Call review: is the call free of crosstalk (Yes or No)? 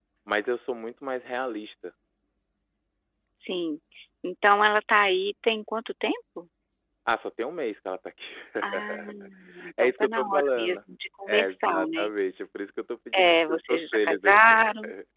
No